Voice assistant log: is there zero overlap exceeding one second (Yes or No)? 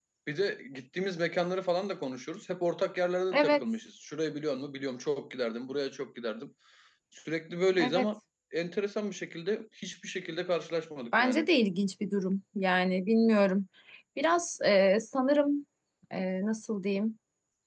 Yes